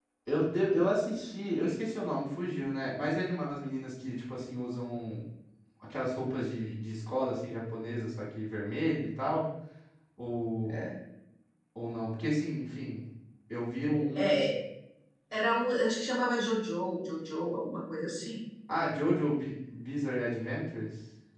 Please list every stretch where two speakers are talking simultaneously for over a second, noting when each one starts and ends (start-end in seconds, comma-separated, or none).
none